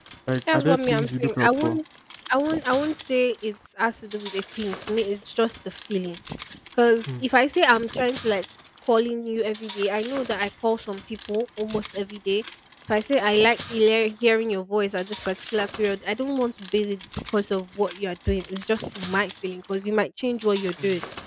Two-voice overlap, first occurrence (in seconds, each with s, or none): 0.5 s